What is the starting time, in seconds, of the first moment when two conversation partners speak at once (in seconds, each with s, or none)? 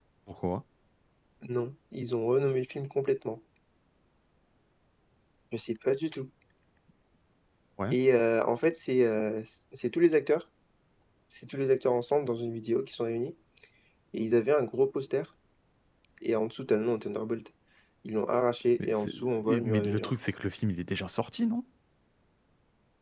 18.8 s